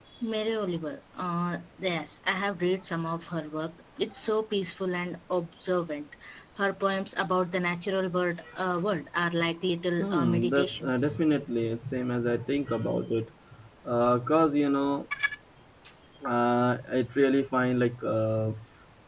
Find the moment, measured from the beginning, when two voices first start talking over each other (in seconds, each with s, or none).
10.0 s